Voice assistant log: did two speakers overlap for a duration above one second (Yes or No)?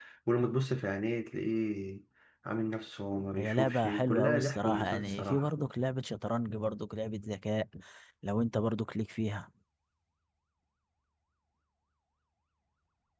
Yes